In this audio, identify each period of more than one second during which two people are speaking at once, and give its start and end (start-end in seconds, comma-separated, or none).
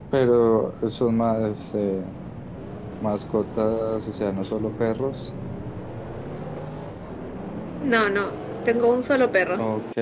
none